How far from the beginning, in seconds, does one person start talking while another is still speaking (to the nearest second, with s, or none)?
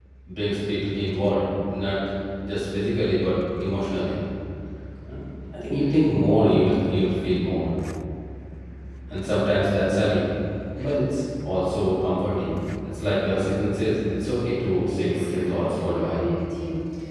15 s